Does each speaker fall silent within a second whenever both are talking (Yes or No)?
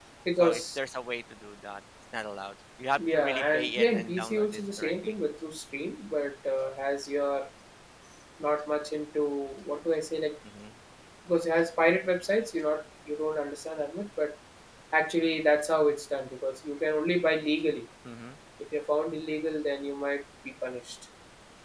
No